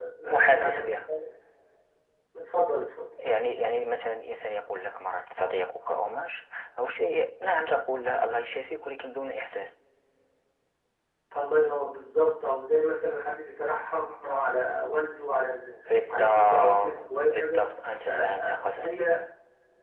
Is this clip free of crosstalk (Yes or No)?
No